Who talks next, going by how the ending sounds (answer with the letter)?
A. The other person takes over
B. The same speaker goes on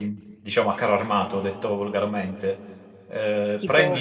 A